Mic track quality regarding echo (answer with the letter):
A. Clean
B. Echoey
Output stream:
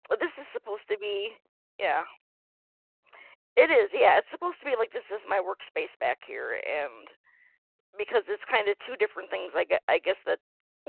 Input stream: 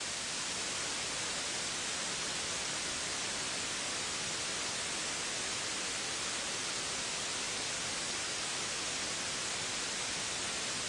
A